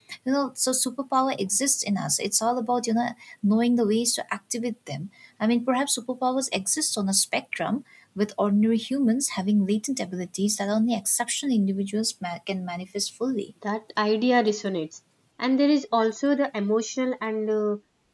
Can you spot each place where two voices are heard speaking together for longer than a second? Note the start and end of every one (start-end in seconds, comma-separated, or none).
none